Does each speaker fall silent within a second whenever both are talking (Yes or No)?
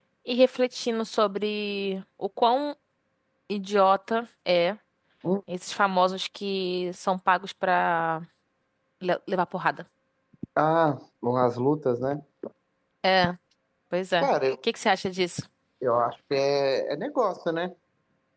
Yes